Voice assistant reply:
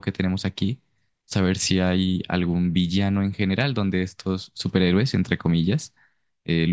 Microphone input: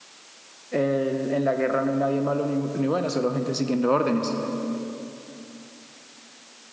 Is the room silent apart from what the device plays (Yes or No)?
No